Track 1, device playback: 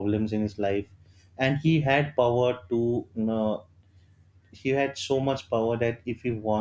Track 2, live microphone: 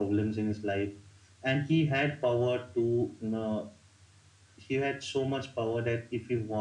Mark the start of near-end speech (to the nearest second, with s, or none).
none